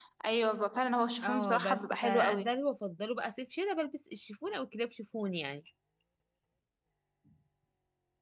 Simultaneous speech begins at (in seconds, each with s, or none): 1.2 s